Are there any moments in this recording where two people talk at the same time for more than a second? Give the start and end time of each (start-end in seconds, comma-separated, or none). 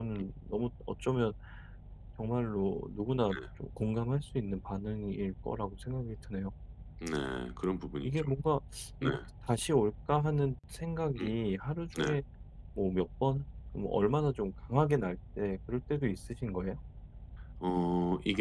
none